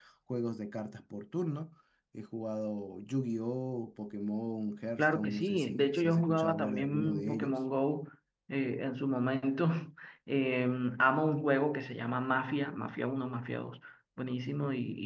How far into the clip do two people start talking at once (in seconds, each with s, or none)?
5.0 s